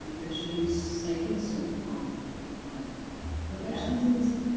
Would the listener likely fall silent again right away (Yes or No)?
Yes